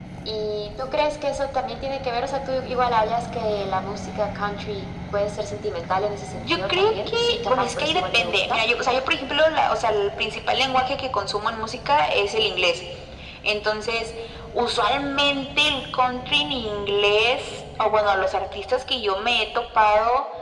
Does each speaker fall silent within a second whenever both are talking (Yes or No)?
No